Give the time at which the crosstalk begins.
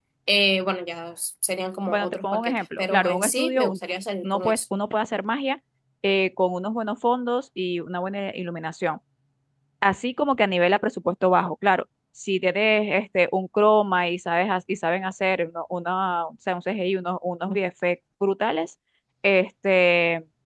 1.9 s

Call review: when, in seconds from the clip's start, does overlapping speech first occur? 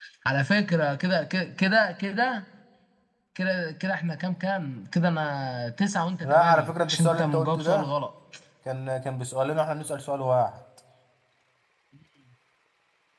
6.2 s

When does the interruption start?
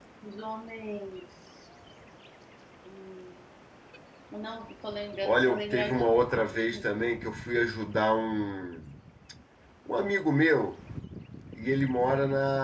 5.2 s

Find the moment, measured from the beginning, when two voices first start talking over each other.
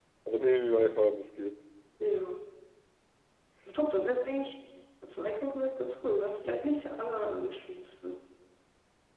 none

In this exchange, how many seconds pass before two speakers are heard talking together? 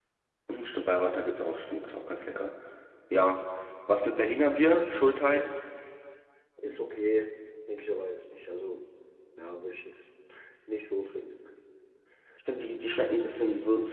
none

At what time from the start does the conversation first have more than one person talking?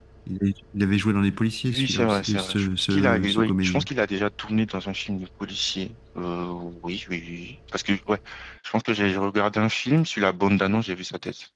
1.6 s

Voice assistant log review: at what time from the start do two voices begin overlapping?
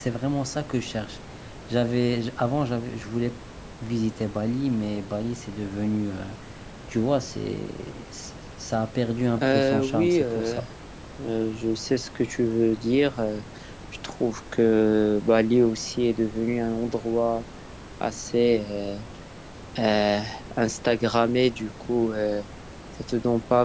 9.4 s

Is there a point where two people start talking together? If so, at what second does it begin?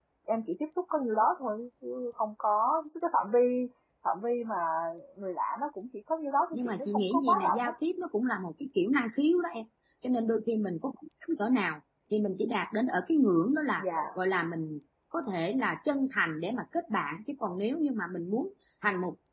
6.5 s

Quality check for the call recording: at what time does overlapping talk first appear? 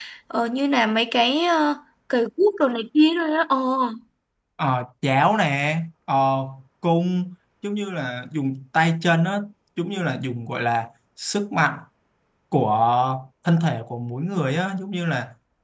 none

